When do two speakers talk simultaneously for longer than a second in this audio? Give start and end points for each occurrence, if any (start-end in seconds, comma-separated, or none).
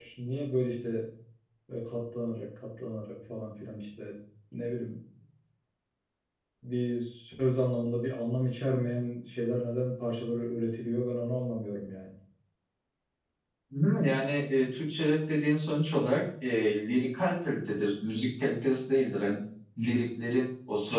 none